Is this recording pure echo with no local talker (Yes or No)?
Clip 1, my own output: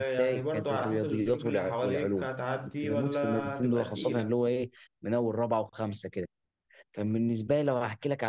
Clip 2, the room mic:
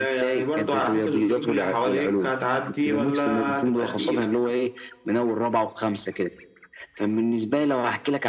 Yes